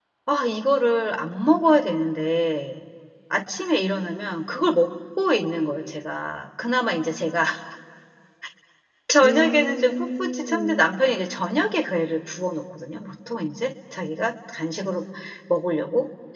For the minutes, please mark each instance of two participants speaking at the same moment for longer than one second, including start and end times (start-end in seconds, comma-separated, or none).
9.2-10.9